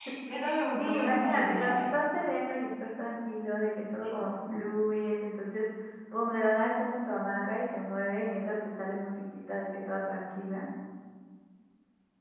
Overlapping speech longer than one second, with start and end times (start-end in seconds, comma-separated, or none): 0.8-2.0